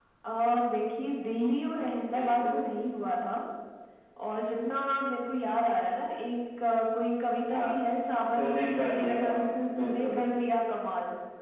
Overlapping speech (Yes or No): Yes